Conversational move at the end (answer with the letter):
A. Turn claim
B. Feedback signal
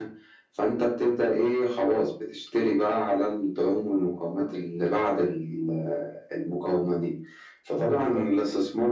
B